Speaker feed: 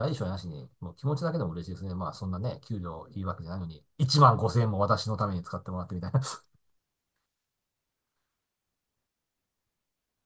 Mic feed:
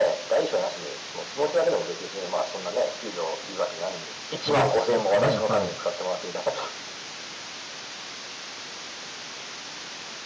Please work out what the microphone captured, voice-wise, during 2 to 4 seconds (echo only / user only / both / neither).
echo only